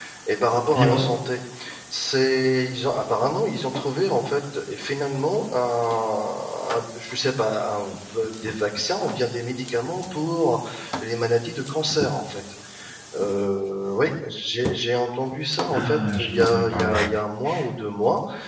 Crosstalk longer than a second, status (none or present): present